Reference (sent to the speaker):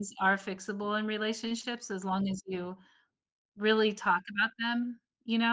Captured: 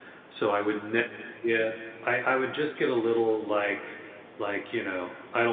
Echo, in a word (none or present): none